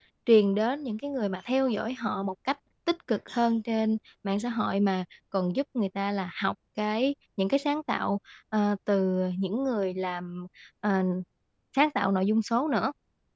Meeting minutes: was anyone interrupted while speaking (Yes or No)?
No